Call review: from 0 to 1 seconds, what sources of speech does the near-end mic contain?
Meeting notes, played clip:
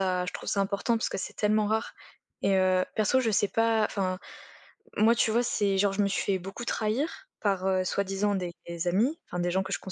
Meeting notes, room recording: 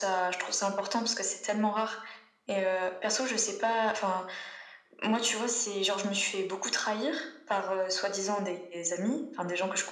echo only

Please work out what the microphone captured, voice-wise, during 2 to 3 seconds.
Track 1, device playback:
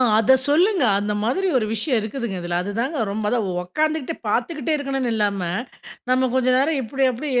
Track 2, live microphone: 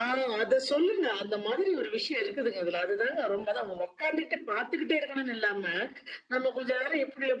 echo only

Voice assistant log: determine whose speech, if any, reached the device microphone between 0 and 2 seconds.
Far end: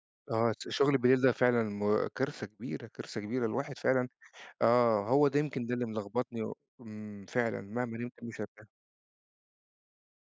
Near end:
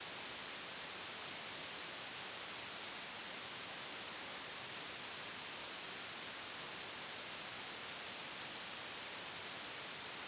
neither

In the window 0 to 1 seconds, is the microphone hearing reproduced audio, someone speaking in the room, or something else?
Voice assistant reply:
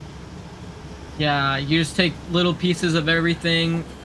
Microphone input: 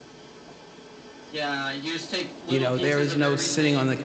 neither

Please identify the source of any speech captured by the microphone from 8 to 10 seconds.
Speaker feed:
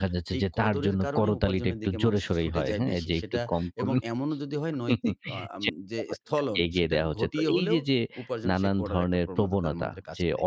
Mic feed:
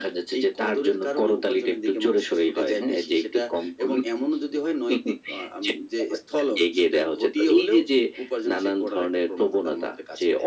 echo only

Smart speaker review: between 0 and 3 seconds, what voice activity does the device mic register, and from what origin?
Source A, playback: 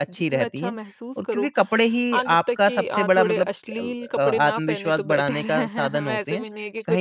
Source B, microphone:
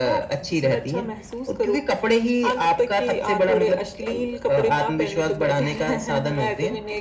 echo only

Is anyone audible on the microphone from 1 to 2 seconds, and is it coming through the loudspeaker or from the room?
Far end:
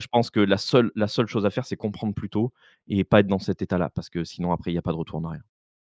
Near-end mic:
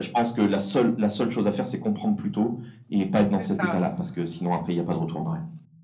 echo only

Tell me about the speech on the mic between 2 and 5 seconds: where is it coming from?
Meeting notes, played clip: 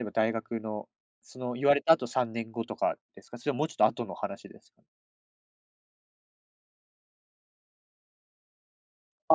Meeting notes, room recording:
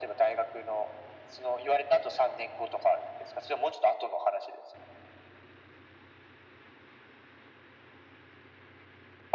echo only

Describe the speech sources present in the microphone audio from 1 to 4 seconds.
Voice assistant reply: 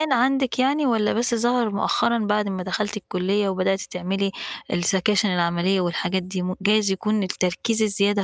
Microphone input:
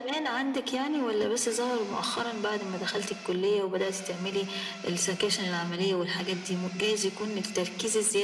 echo only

